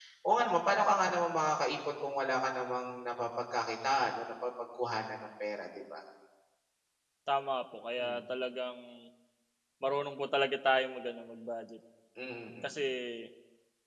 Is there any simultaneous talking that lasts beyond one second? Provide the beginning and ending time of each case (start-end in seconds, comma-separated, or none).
none